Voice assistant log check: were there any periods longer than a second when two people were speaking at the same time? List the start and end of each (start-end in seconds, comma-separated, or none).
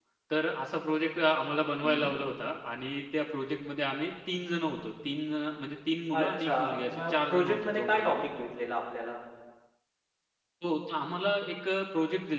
6.2-8.2